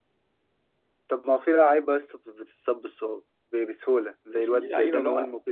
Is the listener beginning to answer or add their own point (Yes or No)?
Yes